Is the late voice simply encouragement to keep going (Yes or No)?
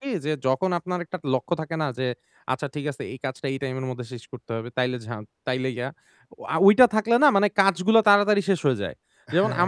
Yes